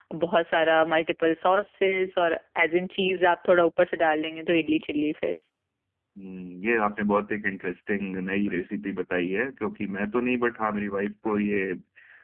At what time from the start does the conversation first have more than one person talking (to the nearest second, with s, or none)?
none